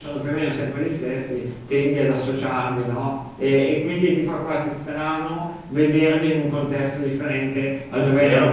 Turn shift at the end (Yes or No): No